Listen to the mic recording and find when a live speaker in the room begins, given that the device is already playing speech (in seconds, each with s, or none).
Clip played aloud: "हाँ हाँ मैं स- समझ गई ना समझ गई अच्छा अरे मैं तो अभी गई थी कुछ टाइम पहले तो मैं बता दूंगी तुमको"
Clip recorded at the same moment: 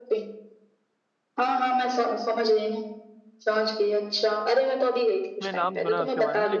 5.4 s